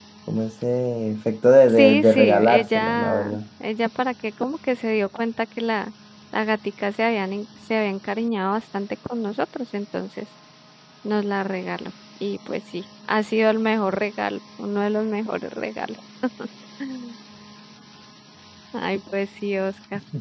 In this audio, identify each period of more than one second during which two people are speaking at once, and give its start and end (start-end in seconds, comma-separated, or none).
1.7-3.4